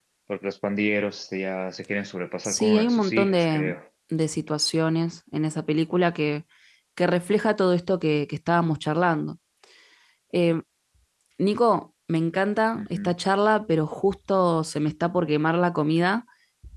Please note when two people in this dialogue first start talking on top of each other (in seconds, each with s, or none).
2.4 s